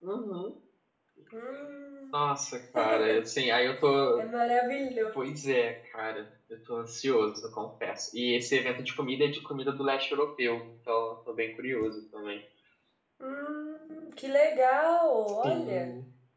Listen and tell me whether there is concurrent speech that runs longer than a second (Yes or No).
No